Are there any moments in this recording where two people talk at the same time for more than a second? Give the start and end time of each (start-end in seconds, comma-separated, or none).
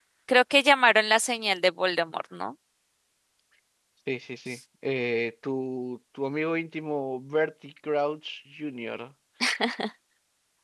none